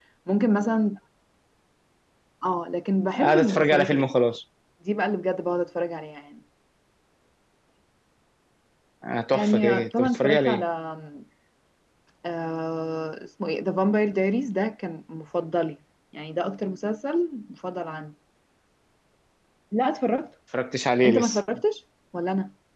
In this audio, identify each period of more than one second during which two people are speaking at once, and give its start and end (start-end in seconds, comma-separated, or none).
3.1-4.4, 9.3-10.6